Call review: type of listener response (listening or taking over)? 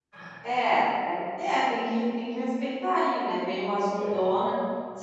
listening